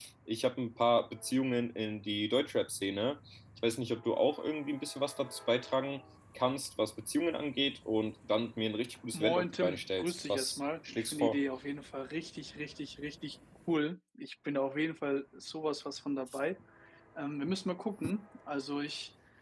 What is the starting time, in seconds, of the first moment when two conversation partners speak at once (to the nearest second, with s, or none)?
9 s